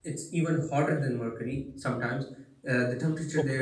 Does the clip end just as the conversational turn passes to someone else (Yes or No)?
No